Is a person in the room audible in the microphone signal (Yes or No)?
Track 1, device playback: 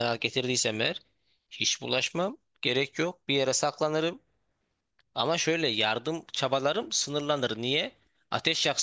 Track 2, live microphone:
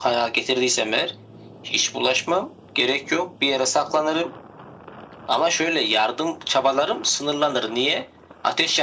No